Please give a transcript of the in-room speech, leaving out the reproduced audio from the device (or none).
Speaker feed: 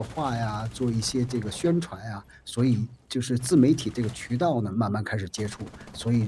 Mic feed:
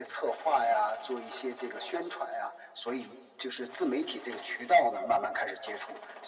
none